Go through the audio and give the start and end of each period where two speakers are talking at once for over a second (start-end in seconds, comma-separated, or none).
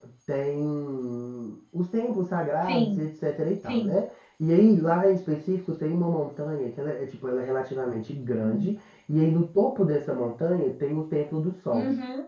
none